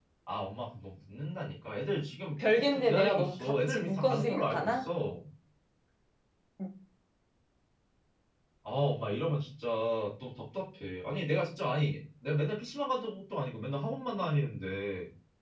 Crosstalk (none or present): present